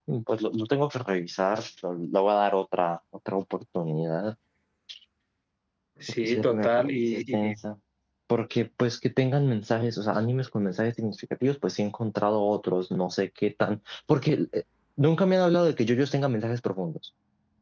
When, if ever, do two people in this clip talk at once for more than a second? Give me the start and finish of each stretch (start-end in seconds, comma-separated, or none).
6.2-7.5